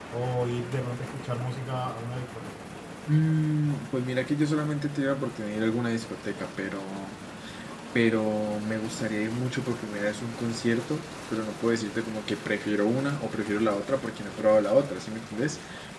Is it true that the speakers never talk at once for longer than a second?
Yes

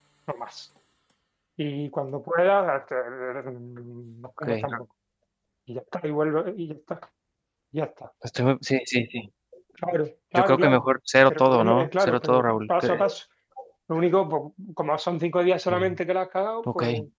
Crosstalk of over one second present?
Yes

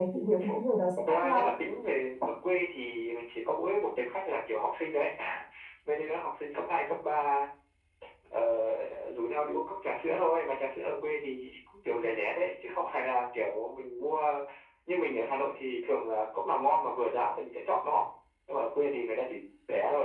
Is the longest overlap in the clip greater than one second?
No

